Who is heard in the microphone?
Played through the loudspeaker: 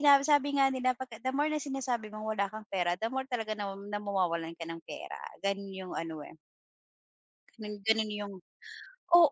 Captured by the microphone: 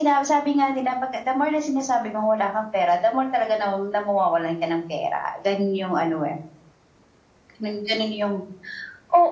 echo only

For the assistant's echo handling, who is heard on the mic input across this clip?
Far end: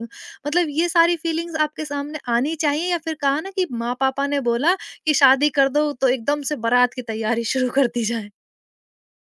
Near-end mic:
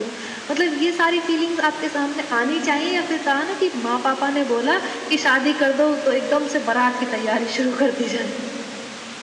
echo only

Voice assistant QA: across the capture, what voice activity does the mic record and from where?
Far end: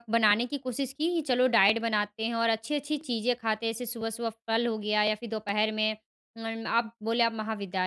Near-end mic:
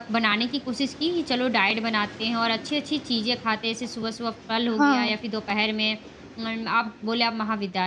both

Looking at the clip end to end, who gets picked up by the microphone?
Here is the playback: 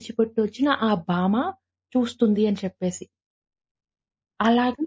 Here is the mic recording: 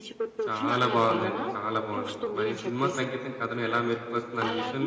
both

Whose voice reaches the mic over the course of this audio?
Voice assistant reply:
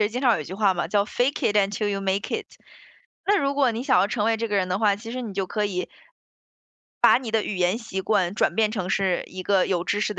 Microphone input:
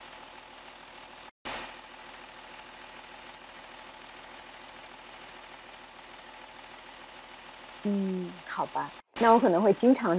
user only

